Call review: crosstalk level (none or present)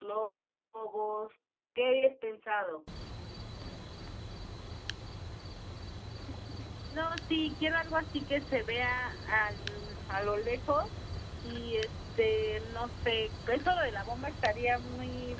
none